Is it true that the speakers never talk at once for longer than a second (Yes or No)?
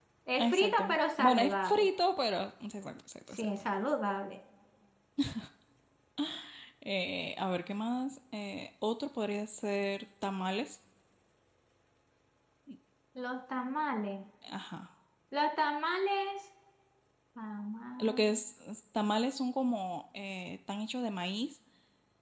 No